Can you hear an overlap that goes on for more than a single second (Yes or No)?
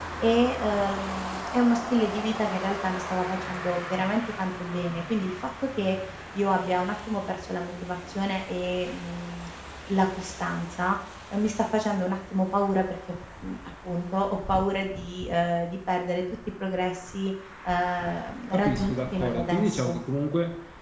Yes